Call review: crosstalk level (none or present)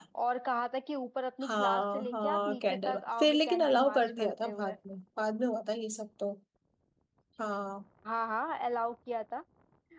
present